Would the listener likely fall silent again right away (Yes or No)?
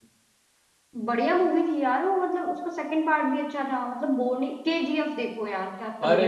No